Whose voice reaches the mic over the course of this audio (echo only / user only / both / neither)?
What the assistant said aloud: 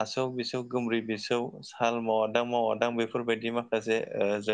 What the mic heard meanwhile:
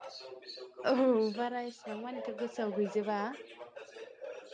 both